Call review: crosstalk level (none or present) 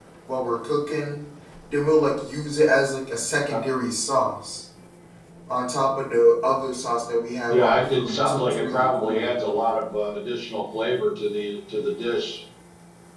present